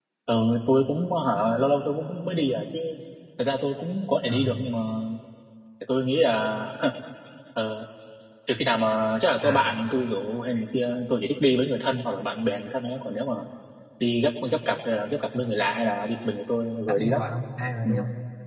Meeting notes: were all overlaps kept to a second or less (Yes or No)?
Yes